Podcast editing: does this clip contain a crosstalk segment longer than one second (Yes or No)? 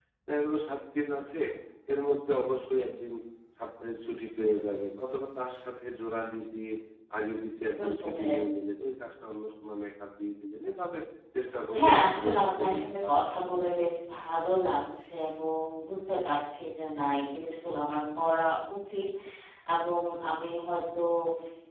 Yes